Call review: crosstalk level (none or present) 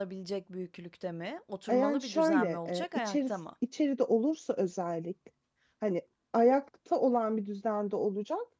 present